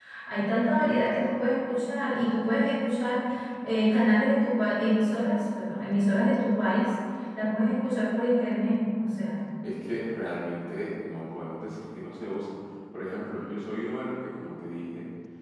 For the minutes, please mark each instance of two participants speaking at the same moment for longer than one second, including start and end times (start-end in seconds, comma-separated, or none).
none